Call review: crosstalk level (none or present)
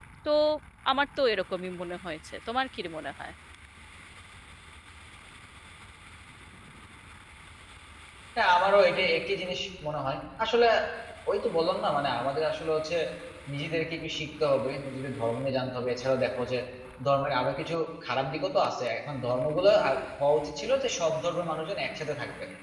none